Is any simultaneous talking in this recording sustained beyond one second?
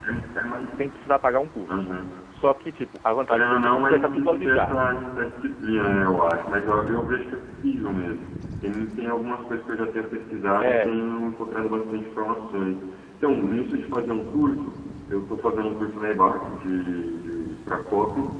Yes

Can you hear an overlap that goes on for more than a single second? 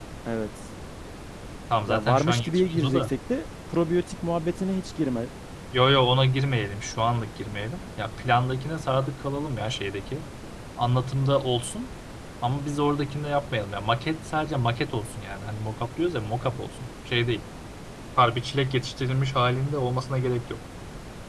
Yes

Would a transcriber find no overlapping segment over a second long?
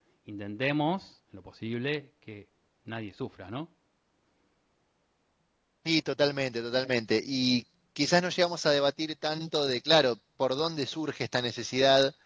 Yes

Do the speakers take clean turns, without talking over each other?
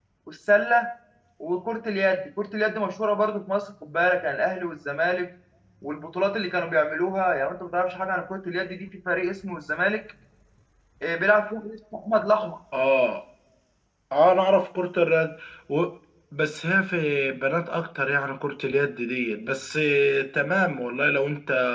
Yes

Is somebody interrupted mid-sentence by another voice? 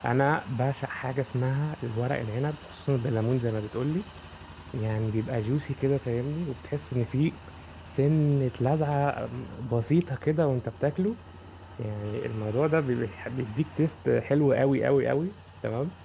No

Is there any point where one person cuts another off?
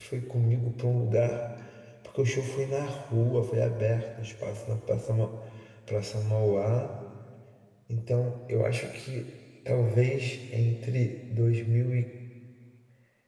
No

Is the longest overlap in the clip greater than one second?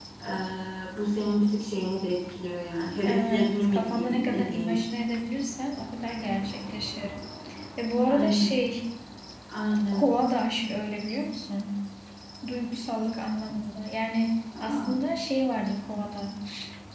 Yes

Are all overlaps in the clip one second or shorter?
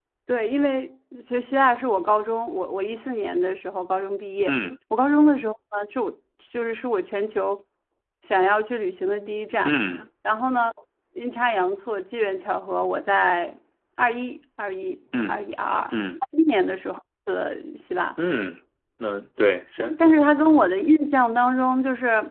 Yes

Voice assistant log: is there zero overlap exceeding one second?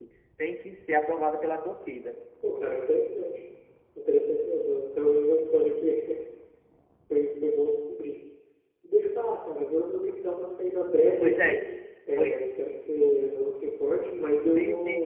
Yes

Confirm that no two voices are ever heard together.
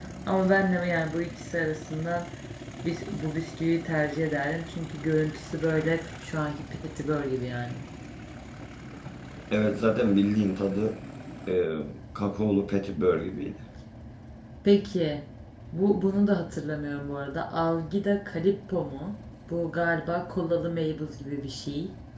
Yes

